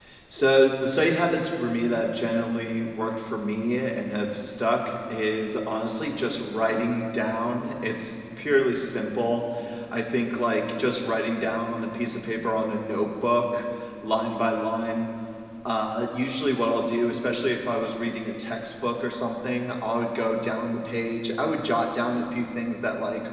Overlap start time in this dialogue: none

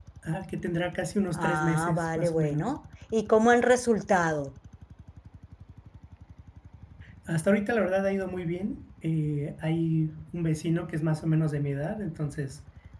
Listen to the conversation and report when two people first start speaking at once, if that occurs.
1.3 s

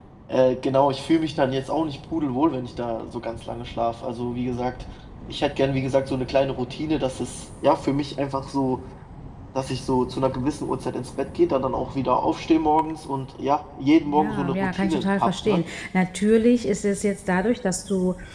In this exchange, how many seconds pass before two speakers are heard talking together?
14.0 s

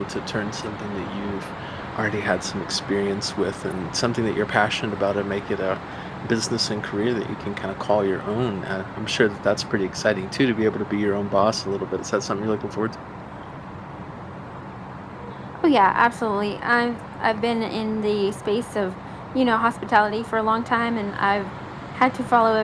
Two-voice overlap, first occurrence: none

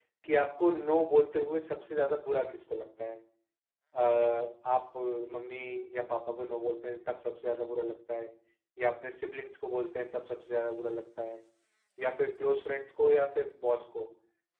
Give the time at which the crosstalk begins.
none

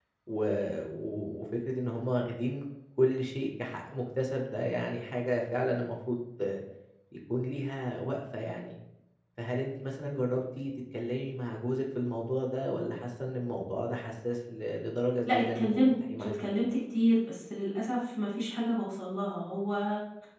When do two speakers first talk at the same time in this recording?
15.3 s

